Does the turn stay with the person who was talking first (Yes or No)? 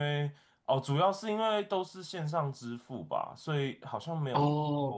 Yes